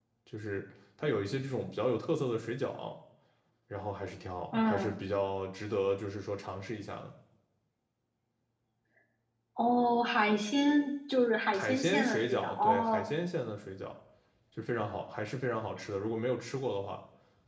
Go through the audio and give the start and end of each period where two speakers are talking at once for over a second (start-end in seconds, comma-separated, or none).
11.5-13.1